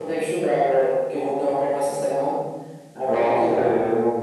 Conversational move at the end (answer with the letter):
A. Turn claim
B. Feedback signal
A